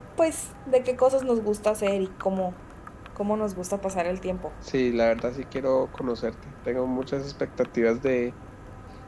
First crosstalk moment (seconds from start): none

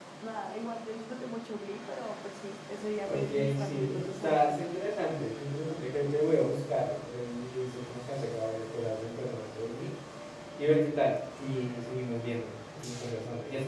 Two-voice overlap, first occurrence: 3.0 s

